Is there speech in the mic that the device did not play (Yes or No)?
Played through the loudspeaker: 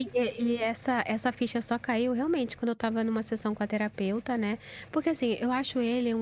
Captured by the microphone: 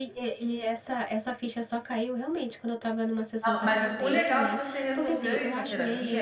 Yes